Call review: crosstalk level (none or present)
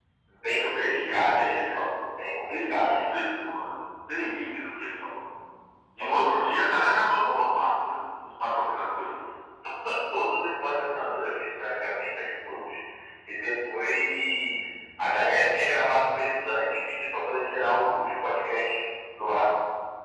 present